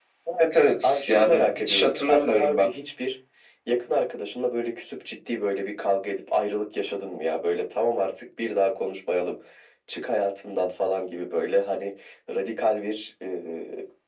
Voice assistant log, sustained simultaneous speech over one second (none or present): present